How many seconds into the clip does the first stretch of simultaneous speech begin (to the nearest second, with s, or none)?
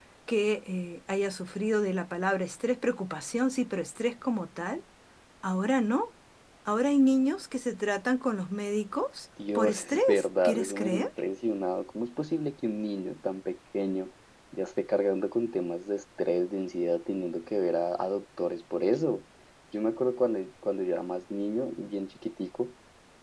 9 s